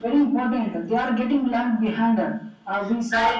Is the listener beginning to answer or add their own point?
No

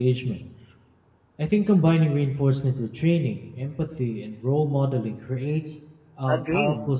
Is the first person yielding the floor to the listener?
Yes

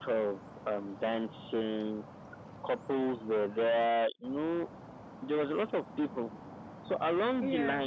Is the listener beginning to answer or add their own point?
No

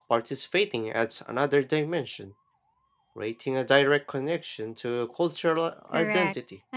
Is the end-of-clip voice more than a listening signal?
Yes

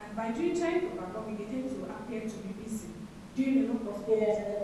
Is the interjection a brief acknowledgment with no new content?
Yes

